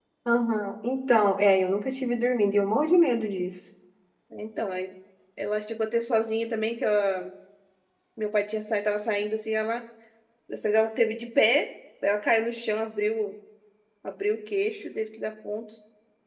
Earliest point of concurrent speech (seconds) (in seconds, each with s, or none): none